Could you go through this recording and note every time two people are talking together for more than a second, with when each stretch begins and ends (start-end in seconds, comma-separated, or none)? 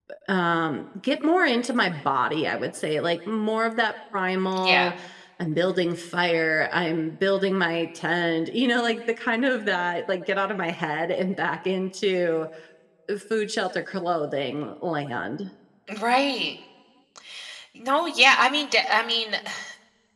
none